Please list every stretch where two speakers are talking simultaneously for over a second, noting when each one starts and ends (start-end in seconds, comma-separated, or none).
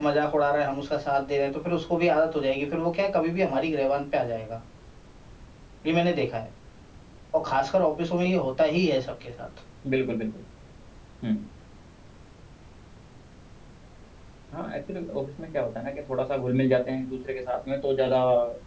none